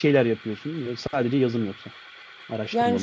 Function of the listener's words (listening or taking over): taking over